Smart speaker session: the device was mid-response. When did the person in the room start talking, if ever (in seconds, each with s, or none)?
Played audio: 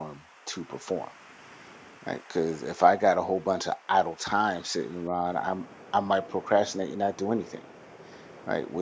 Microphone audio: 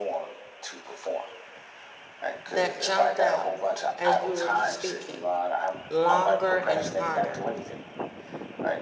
2.5 s